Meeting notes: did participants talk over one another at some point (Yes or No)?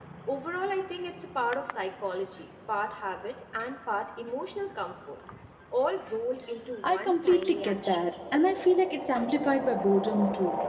Yes